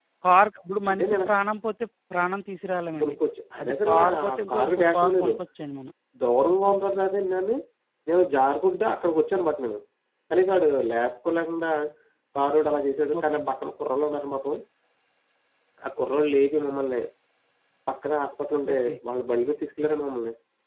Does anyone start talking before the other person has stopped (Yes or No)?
Yes